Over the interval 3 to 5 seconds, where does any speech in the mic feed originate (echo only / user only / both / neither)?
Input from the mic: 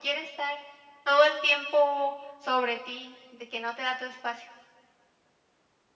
echo only